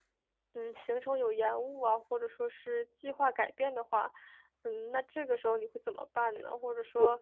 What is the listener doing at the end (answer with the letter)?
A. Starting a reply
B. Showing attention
B